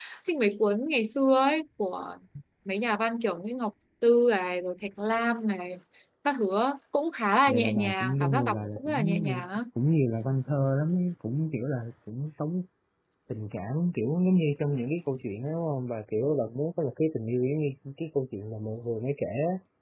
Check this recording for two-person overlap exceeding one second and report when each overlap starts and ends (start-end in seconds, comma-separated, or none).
7.5-9.5